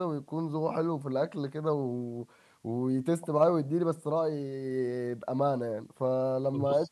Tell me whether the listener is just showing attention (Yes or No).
Yes